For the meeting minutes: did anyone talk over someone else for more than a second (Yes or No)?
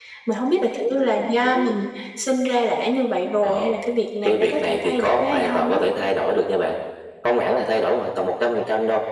Yes